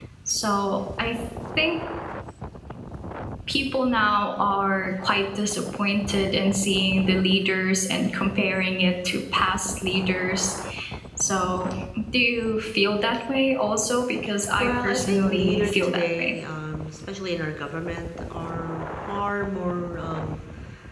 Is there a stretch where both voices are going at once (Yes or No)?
Yes